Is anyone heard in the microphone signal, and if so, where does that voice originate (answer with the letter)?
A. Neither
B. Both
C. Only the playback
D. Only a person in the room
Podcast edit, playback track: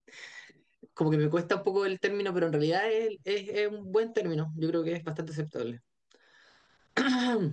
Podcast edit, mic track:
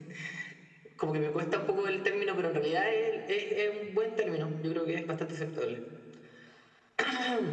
C